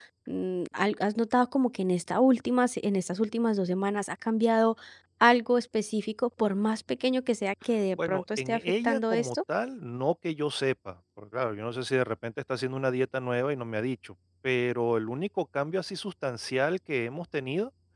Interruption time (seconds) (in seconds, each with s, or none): 8.0 s